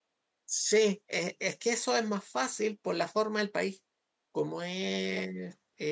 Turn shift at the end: No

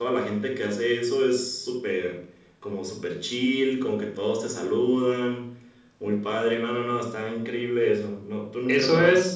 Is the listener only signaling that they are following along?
No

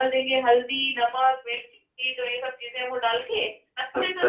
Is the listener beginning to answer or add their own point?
No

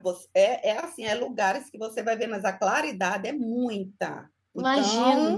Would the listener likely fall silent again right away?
No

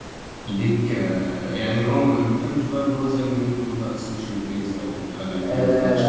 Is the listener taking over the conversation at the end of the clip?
Yes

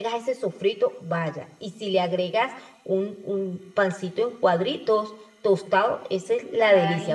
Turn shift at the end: Yes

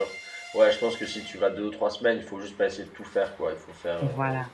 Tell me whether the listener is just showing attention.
Yes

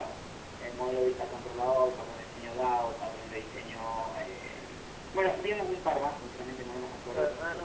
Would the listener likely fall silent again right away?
No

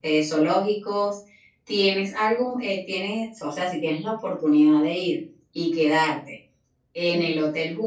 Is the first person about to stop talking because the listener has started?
No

